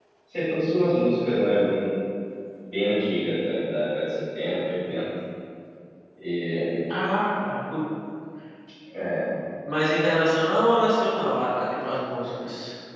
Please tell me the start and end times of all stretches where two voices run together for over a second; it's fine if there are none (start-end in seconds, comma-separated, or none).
none